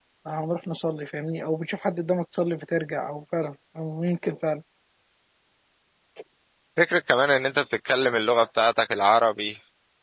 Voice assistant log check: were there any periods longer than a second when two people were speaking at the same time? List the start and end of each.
none

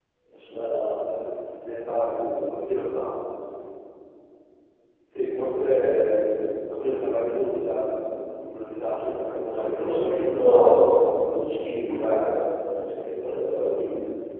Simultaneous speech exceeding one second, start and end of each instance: 9.5-11.2

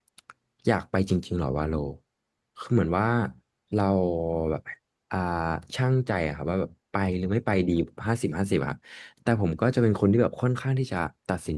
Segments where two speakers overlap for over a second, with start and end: none

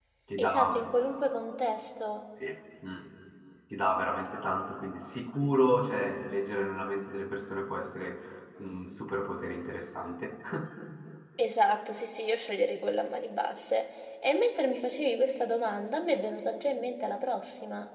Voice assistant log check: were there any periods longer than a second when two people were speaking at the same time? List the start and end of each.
none

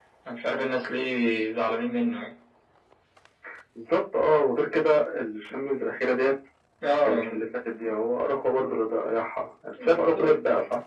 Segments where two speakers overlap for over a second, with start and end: none

